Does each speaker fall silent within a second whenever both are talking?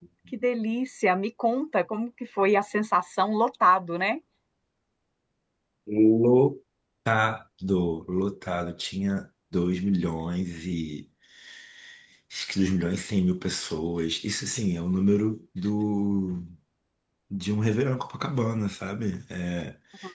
Yes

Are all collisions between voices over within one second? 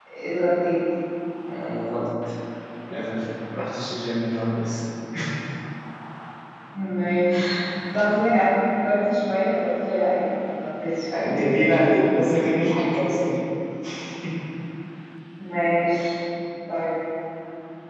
Yes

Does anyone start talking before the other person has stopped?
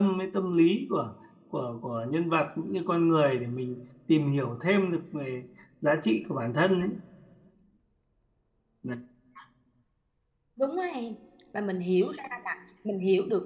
No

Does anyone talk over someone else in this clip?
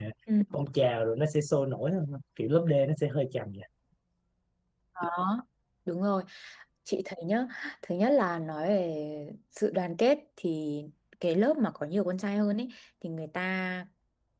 No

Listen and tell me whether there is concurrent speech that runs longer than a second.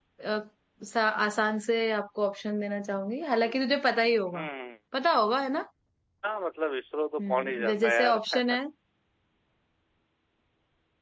Yes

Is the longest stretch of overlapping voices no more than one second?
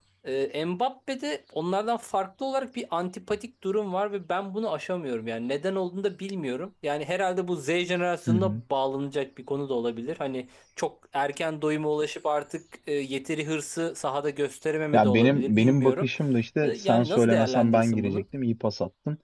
No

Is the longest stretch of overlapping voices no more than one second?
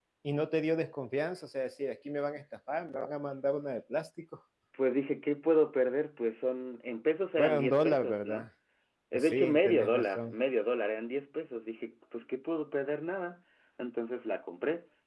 No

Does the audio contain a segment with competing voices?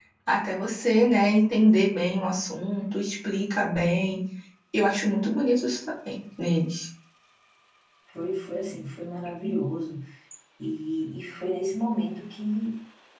No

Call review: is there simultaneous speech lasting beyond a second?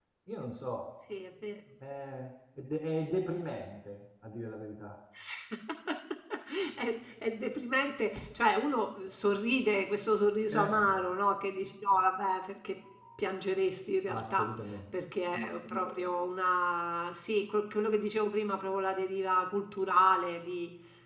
No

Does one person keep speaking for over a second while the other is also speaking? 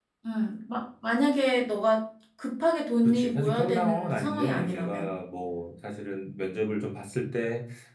Yes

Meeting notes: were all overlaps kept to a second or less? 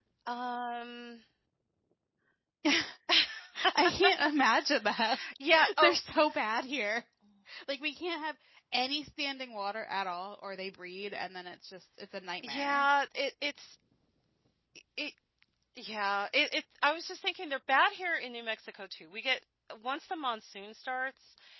Yes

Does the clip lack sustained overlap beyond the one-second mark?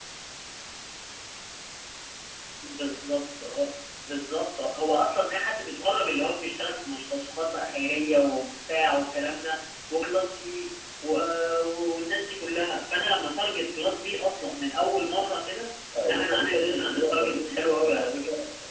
No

